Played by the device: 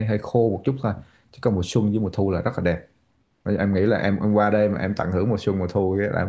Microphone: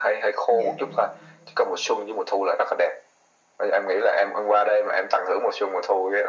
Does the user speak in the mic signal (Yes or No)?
Yes